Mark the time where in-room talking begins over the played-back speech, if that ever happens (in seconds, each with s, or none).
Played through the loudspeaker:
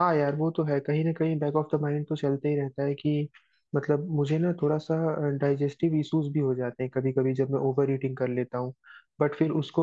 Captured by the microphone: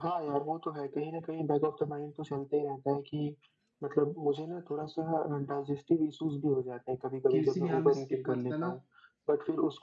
7.3 s